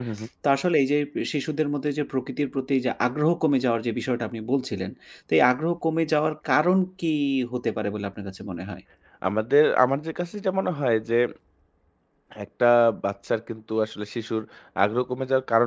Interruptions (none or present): none